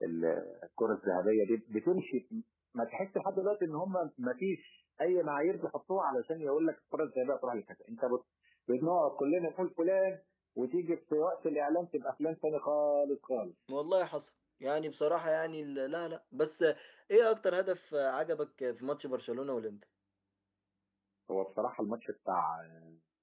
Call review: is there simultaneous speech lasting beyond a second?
No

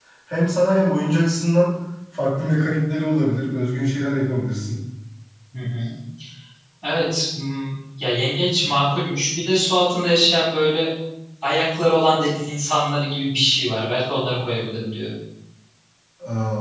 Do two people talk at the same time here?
No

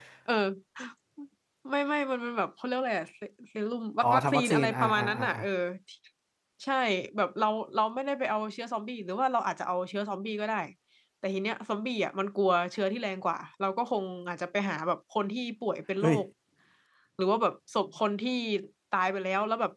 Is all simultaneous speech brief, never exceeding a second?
No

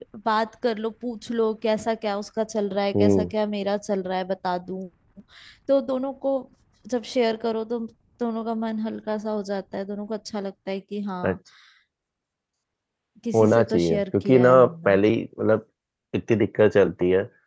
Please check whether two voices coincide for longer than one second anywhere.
Yes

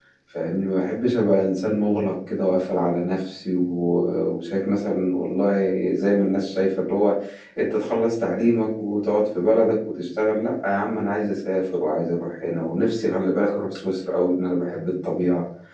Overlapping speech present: No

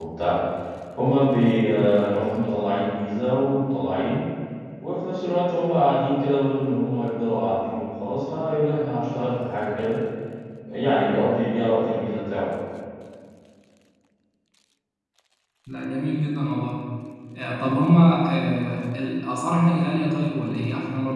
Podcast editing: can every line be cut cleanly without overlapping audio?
Yes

